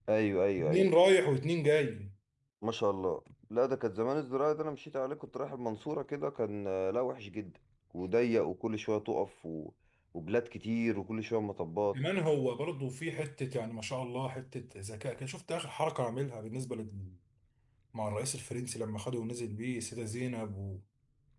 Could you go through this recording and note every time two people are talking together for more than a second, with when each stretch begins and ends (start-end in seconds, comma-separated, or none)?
none